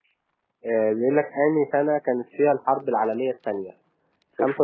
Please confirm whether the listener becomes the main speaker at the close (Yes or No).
No